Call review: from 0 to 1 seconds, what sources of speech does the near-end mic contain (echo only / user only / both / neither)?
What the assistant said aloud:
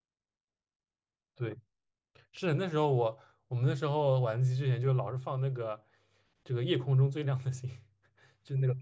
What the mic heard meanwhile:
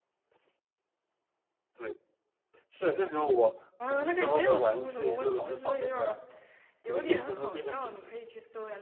neither